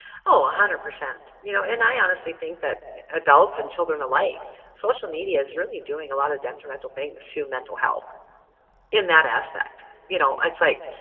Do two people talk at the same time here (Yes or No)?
No